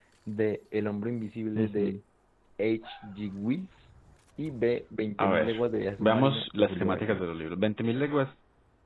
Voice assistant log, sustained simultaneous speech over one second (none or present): present